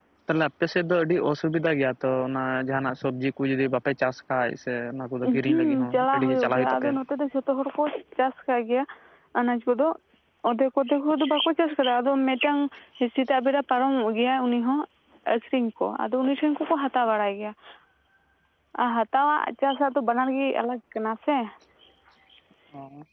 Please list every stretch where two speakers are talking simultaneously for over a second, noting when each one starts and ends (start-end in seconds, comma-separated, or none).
5.4-6.9